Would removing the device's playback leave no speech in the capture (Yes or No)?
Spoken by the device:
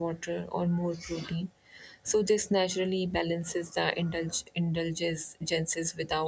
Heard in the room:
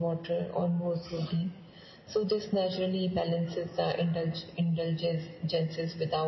Yes